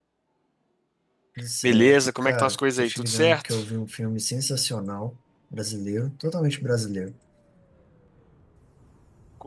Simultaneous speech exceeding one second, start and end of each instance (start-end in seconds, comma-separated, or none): 1.6-3.6